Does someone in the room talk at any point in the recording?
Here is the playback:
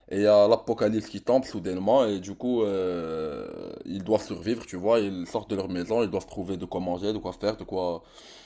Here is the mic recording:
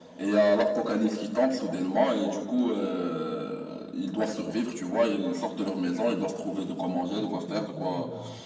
Yes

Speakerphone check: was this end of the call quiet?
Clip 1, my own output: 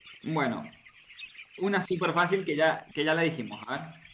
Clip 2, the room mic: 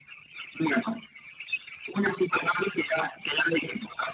Yes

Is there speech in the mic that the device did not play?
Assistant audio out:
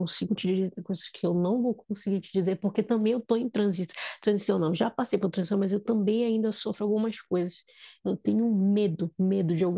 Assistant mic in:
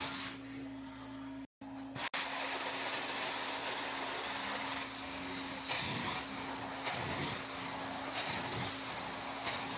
No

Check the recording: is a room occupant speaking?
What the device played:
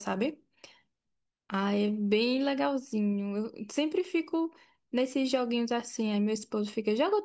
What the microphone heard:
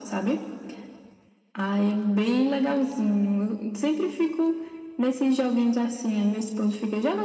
No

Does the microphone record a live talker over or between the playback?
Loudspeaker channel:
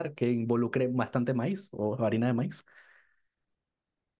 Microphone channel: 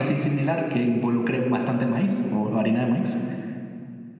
No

